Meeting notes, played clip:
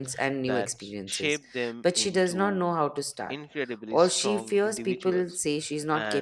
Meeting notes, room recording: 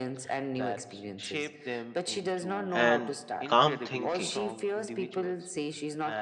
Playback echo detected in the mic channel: Yes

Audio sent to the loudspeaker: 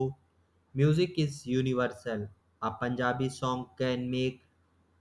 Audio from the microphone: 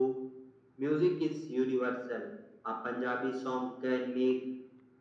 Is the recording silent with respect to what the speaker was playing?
No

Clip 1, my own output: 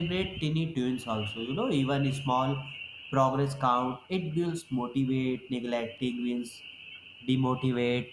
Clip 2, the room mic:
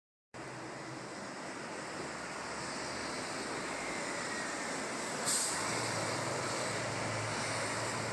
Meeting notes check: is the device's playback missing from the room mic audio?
Yes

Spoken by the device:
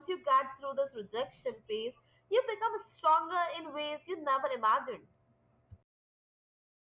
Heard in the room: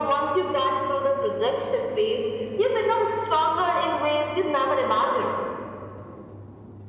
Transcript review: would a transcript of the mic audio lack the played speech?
No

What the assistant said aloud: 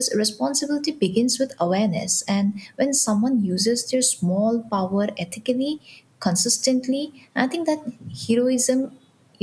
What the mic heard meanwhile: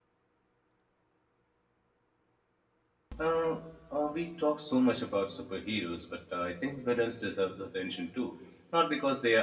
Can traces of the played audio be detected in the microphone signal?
No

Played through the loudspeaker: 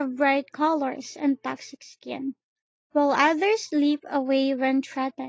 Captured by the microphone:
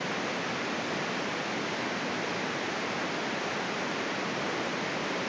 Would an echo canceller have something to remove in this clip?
No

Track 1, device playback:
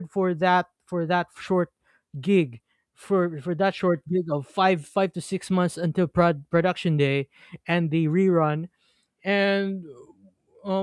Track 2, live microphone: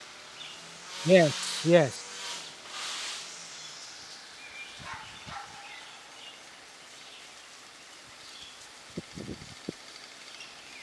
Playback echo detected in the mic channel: No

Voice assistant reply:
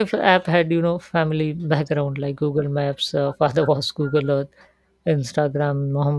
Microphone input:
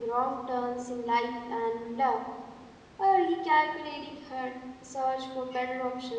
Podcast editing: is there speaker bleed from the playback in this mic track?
No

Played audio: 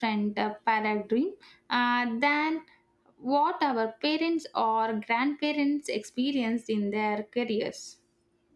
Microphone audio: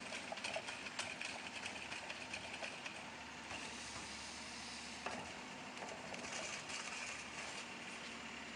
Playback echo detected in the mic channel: No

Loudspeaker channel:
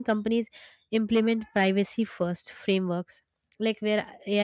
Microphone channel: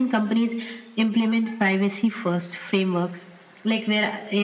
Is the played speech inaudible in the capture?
No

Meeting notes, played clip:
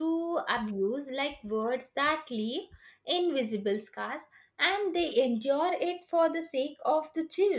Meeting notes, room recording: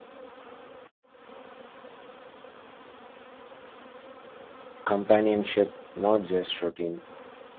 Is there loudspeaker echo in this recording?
No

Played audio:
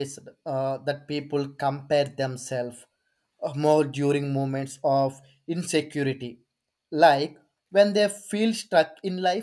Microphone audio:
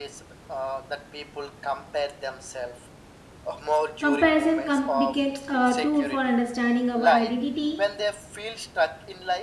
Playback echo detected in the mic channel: Yes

